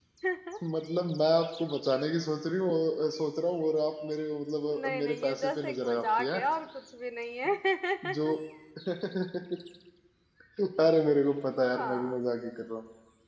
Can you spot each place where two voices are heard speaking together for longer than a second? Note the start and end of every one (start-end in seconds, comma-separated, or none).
4.7-6.3